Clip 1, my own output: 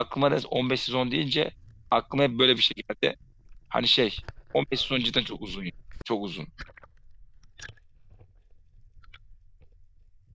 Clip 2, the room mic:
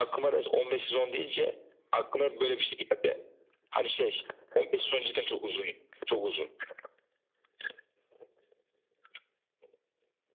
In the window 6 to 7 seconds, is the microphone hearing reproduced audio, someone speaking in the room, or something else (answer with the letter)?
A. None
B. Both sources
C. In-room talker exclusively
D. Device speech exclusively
D